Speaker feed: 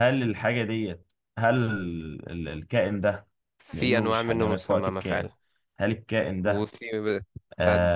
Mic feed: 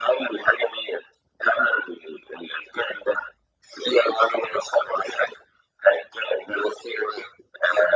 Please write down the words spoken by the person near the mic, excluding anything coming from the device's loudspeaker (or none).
none